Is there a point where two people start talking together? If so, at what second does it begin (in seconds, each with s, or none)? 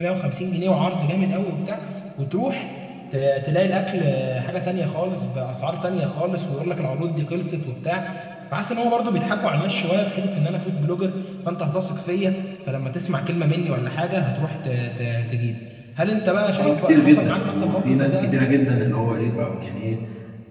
16.5 s